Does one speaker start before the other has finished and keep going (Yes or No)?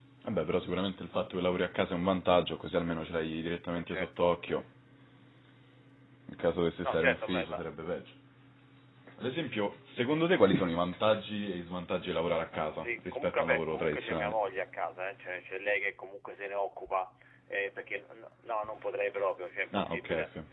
Yes